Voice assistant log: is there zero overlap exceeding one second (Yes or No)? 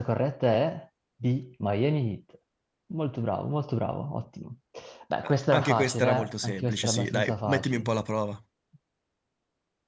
No